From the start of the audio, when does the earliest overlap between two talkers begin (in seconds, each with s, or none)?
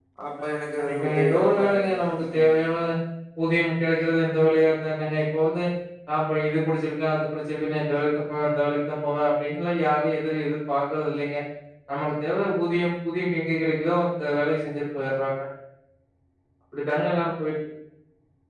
0.8 s